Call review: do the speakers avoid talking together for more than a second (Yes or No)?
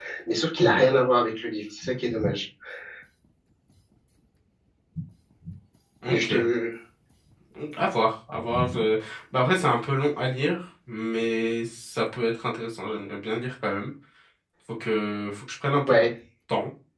Yes